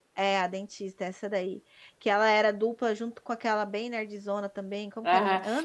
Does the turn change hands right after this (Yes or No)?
Yes